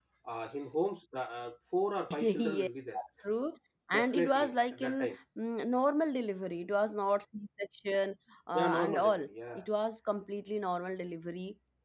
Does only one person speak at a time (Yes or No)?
No